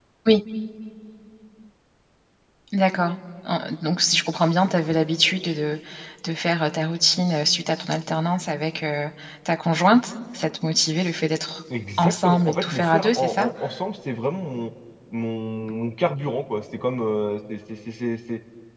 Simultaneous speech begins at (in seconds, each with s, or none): 12.0 s